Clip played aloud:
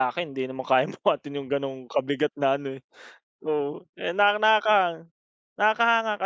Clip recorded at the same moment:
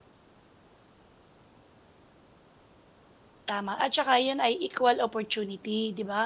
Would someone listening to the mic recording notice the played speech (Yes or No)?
No